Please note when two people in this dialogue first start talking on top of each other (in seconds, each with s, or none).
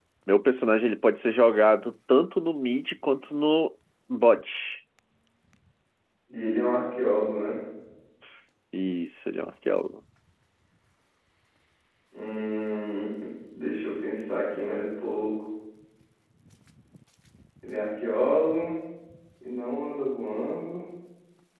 none